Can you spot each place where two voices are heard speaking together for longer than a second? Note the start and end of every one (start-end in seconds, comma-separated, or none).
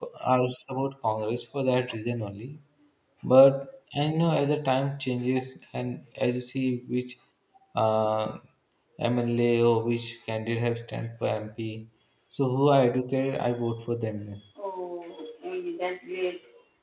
none